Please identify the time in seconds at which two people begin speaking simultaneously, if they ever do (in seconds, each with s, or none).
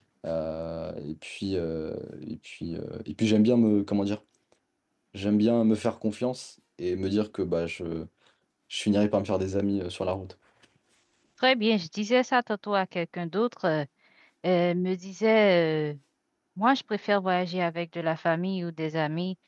none